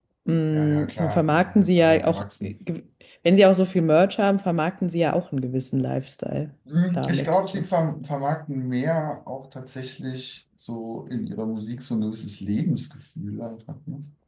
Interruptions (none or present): present